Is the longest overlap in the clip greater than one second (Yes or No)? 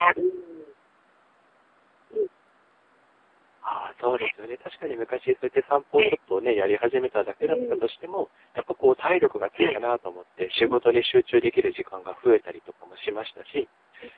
No